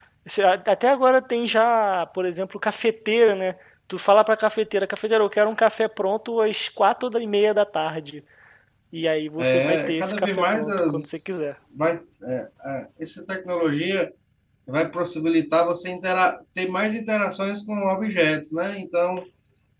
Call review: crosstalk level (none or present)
present